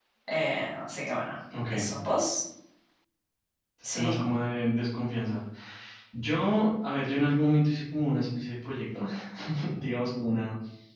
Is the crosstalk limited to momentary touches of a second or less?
Yes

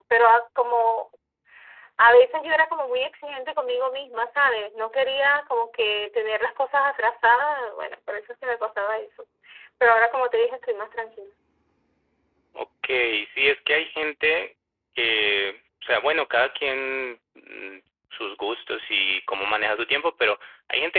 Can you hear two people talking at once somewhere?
No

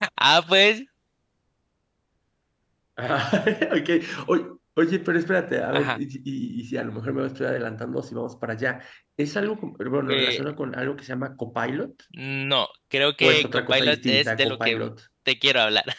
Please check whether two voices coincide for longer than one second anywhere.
Yes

